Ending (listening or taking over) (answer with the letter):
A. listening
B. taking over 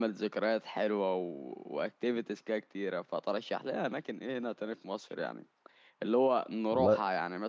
A